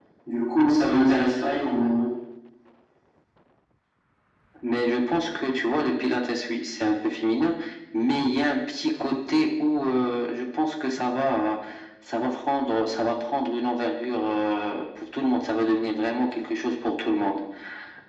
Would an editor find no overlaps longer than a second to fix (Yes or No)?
Yes